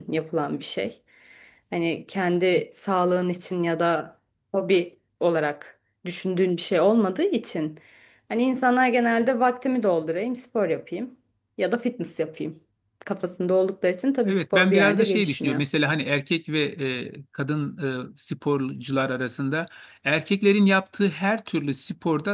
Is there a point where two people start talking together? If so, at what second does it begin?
14.2 s

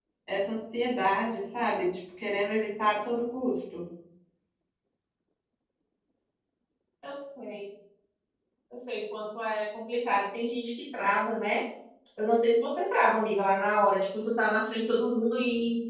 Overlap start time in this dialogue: none

